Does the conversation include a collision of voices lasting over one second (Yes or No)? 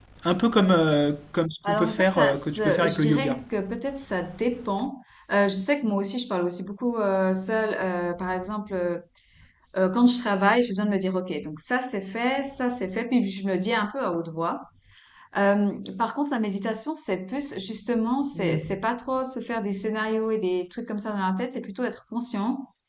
Yes